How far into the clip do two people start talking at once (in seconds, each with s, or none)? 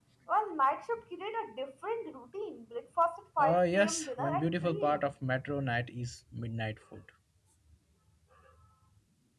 3.4 s